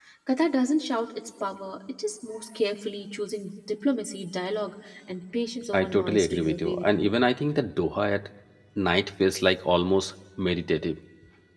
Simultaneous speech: Yes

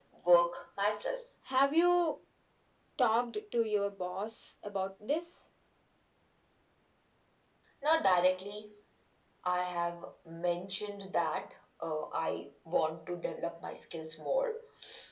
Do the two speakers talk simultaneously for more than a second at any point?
No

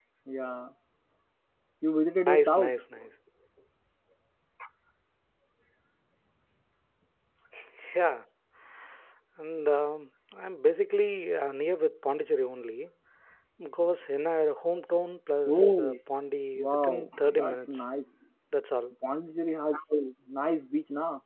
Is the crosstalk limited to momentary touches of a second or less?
No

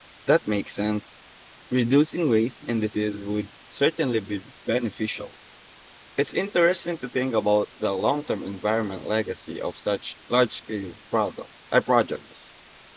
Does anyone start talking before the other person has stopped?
No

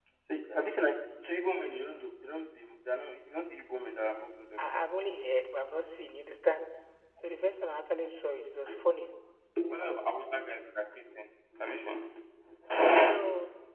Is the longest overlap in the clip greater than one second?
No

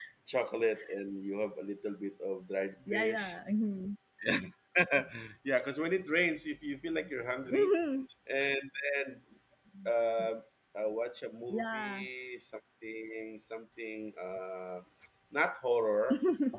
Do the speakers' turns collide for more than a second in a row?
No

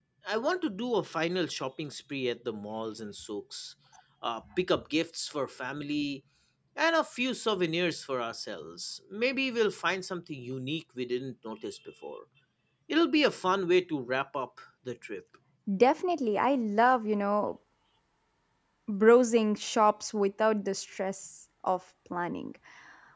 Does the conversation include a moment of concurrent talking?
No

